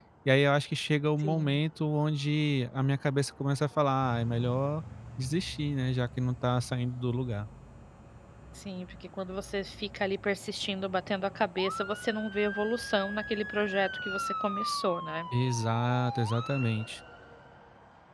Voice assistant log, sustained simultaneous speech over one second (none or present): none